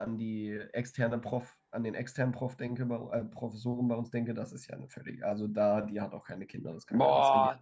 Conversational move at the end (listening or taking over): taking over